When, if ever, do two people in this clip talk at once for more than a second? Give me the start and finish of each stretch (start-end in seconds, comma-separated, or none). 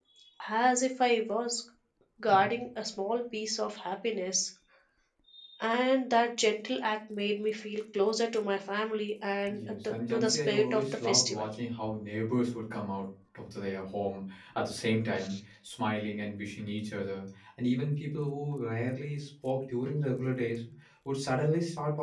9.5-11.5